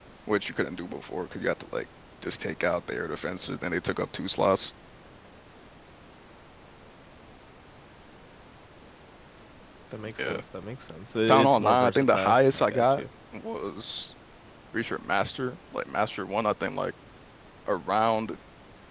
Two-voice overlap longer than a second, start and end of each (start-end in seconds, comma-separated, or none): 11.3-13.0